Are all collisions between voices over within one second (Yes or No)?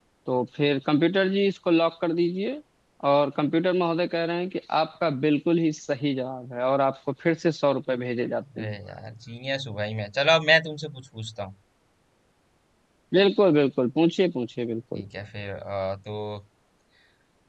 Yes